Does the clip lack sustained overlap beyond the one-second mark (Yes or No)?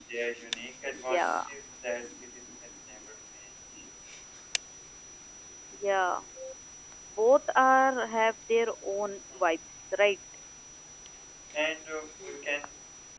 Yes